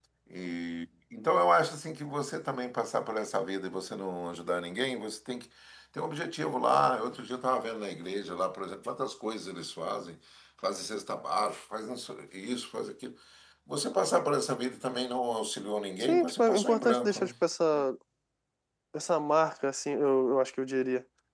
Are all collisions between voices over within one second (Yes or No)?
No